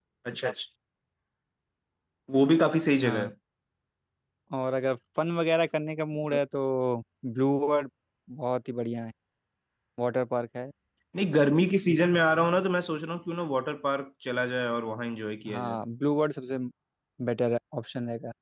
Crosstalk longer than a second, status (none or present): none